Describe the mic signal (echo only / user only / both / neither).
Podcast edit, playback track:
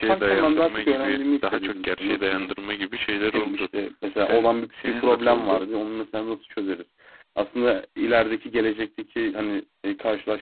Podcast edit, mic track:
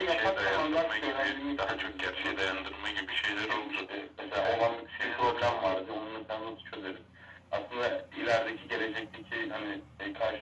echo only